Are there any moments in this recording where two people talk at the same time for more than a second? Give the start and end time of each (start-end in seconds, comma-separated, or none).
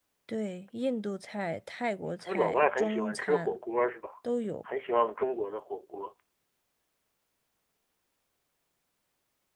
2.2-3.6